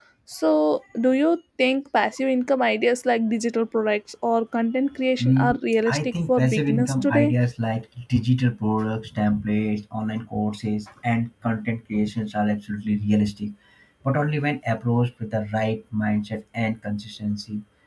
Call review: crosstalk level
present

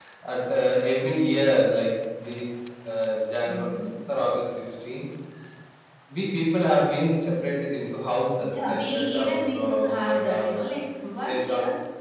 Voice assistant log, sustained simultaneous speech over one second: present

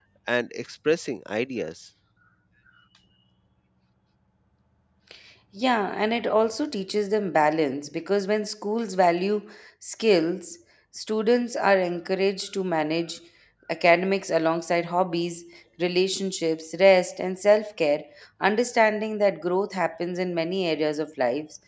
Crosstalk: none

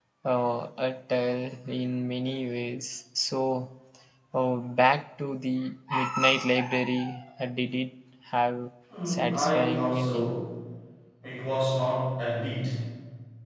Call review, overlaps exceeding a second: present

